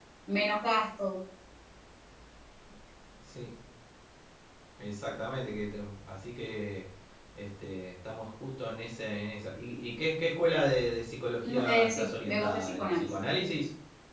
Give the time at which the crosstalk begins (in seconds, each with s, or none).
11.4 s